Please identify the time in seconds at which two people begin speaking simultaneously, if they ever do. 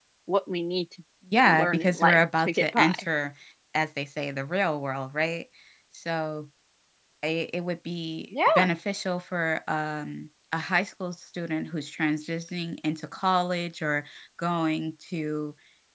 1.4 s

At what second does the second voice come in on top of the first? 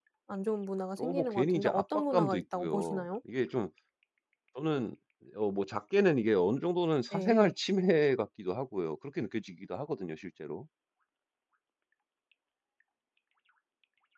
1.0 s

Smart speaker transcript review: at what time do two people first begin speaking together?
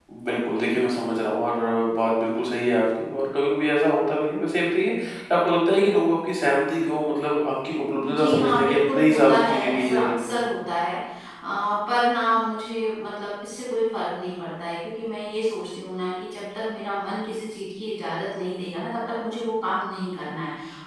8.0 s

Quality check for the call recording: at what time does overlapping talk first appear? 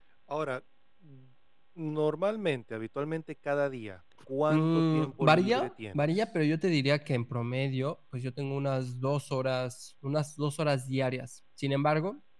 4.5 s

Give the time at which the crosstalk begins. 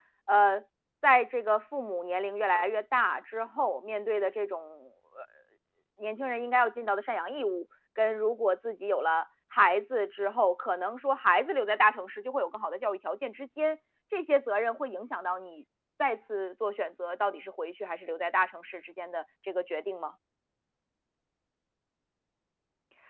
none

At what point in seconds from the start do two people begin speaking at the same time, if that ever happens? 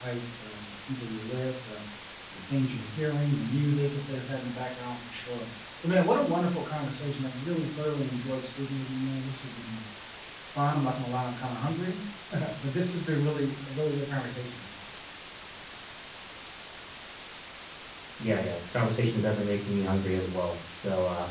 none

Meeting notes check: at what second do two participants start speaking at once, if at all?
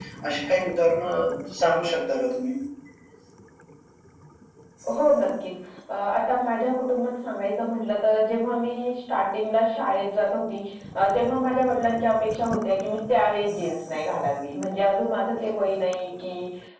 none

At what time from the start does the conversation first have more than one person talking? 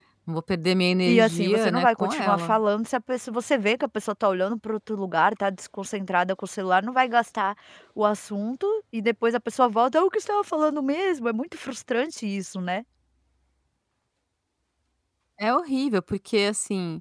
1.1 s

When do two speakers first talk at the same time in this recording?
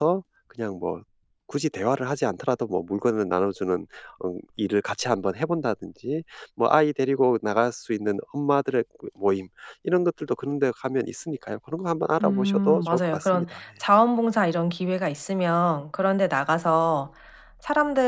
12.2 s

